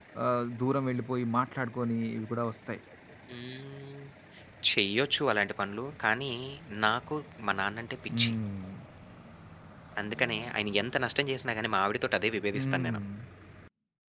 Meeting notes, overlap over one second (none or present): none